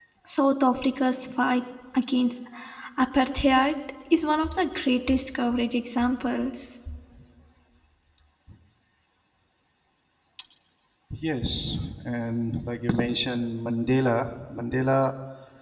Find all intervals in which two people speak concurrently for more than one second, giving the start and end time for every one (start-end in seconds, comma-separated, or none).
none